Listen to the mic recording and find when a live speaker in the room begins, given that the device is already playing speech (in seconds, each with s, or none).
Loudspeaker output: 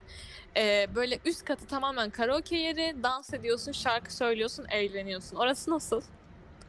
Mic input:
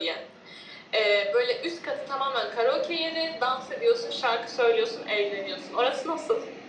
none